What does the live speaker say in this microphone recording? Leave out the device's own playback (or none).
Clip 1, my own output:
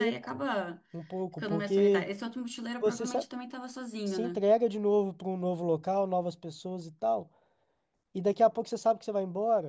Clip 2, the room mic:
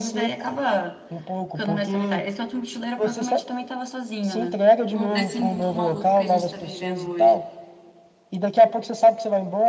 no- nesse mundo maluco que a gente tá vivendo hoje.